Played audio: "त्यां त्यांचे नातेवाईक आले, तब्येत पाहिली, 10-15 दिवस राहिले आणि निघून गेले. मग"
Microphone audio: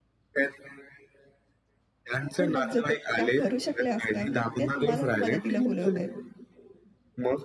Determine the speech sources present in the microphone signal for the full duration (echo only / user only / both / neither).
both